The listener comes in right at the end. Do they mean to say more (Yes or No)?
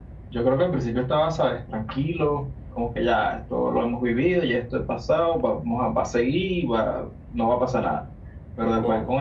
No